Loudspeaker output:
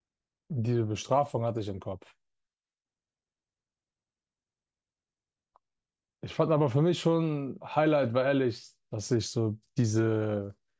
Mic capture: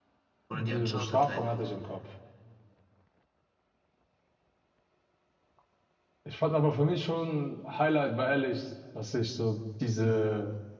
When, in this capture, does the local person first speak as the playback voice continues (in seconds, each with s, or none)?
0.5 s